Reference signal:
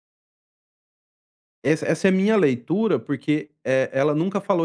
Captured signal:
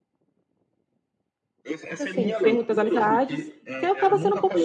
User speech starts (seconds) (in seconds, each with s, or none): 2.0 s